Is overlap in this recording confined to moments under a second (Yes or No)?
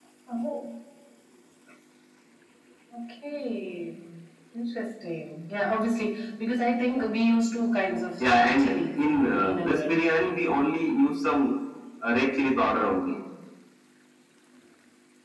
No